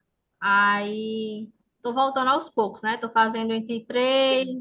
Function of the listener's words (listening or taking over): listening